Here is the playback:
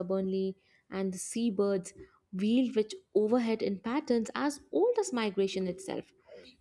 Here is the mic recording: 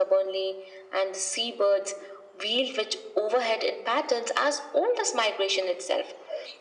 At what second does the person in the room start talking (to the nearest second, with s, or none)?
none